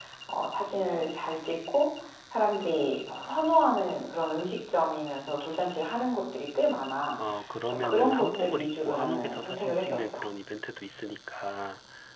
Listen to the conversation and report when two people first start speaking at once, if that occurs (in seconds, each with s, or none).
7.6 s